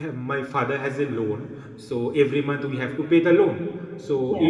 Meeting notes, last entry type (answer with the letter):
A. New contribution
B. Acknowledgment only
B